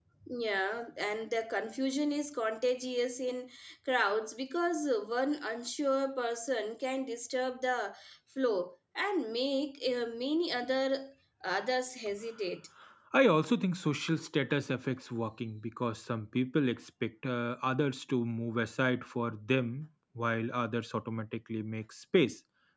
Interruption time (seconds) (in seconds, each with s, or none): none